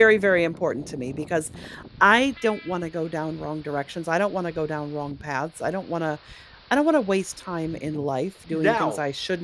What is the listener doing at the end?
listening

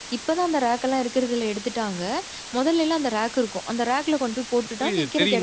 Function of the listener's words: taking over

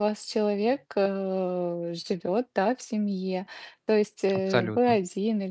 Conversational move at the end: listening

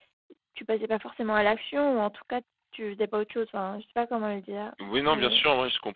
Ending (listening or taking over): taking over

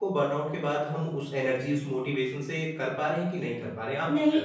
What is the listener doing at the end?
taking over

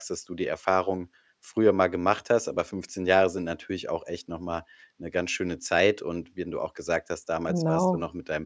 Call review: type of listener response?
listening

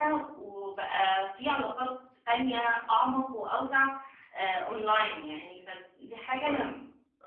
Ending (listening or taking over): taking over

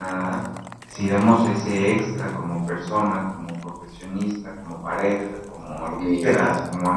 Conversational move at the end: listening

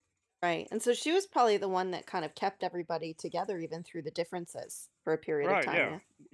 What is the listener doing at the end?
taking over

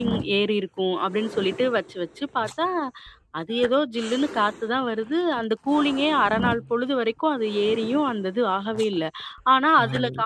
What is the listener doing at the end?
listening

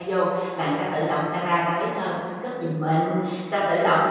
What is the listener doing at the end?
listening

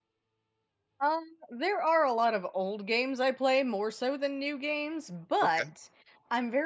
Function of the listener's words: listening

